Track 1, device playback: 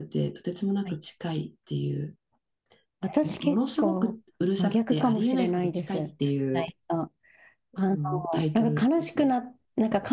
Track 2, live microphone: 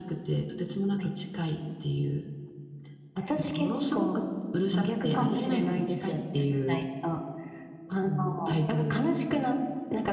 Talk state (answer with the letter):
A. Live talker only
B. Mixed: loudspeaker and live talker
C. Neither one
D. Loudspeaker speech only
D